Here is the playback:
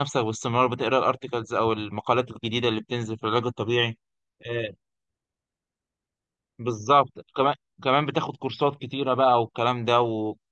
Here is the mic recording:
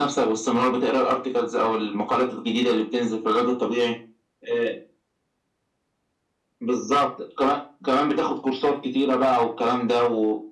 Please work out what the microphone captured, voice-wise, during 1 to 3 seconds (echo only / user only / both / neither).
echo only